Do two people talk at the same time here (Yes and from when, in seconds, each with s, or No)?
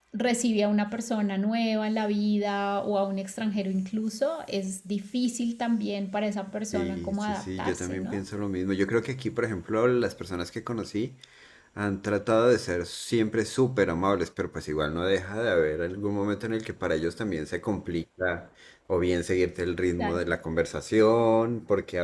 Yes, from 6.7 s